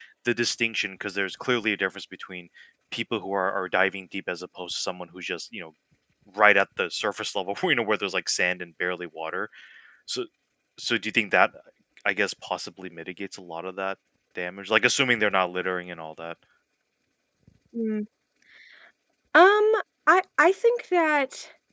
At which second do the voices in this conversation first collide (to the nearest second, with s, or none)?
none